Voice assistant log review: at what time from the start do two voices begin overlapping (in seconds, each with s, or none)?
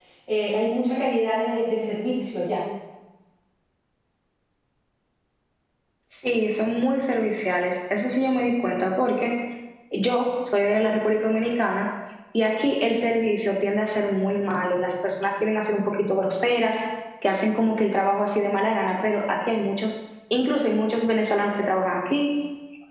none